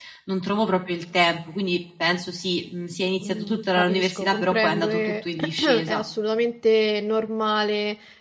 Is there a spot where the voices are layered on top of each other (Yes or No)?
Yes